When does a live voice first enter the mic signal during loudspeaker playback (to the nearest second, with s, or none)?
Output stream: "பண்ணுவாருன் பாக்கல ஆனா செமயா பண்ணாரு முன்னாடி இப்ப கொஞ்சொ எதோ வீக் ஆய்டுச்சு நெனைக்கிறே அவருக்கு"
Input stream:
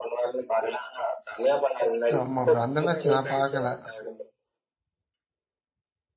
2 s